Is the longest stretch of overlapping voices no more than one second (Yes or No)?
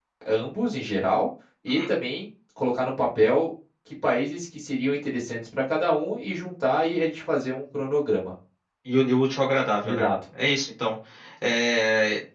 Yes